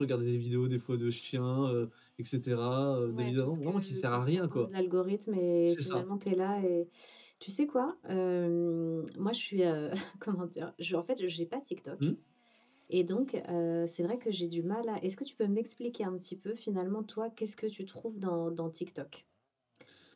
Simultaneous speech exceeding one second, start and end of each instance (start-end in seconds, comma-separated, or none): 3.1-4.7